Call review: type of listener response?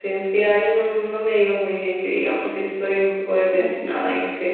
listening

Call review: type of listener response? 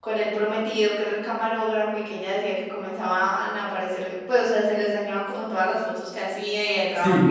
taking over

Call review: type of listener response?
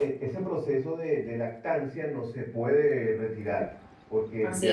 listening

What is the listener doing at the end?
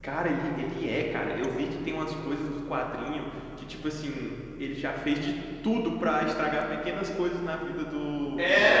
taking over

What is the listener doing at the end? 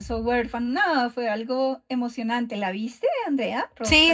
taking over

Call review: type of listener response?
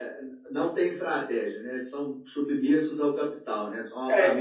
taking over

